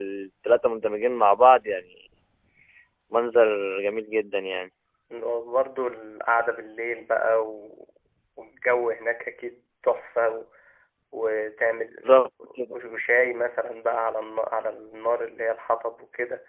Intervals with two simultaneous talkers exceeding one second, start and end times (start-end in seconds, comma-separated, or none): none